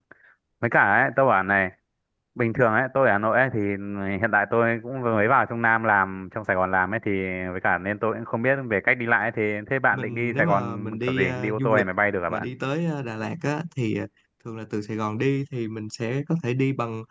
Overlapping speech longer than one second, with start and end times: 9.9-11.8

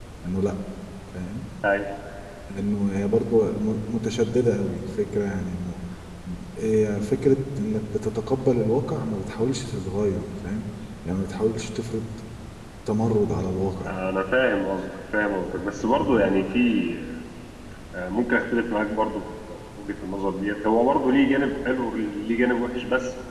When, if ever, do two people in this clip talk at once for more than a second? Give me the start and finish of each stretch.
none

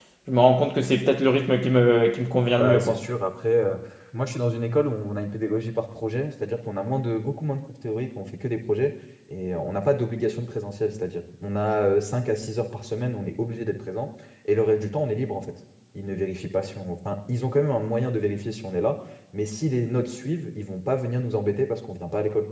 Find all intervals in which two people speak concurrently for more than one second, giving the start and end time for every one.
none

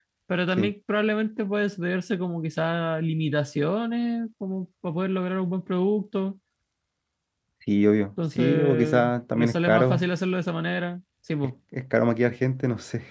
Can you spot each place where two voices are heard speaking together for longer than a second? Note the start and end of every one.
8.4-10.1

